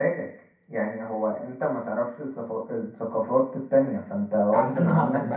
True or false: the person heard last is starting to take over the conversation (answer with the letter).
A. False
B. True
B